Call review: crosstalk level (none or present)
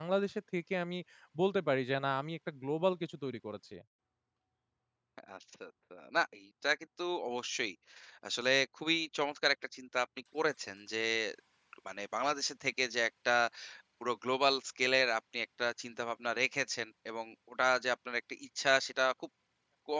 none